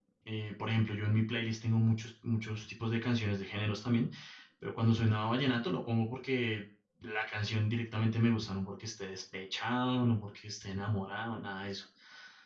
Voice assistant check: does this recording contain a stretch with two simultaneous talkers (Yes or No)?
No